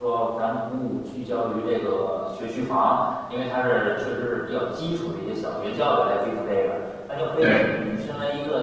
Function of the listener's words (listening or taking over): listening